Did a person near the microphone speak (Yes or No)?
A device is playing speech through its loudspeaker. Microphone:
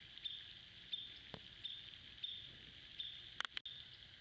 No